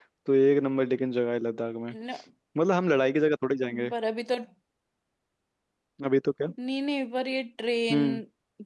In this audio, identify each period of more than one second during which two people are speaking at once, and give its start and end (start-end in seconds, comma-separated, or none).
none